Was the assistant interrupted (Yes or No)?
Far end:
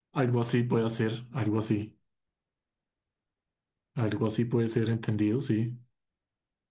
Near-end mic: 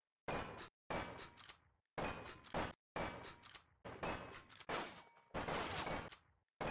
No